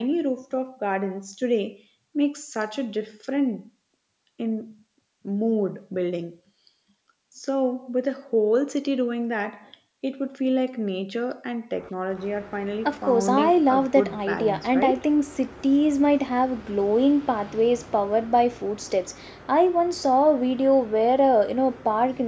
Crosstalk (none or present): present